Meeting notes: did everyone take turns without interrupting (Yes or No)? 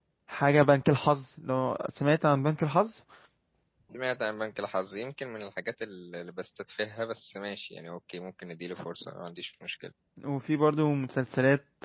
Yes